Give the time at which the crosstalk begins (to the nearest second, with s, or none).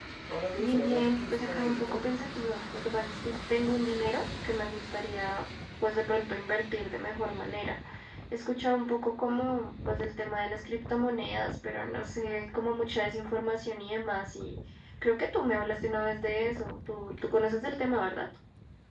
1 s